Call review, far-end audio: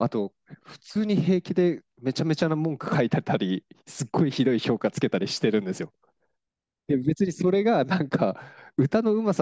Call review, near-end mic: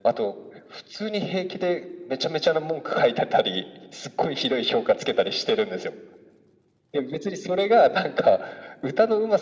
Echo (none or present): present